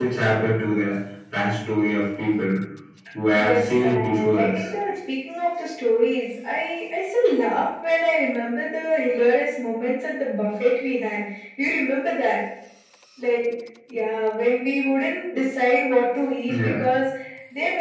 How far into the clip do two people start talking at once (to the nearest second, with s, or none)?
3 s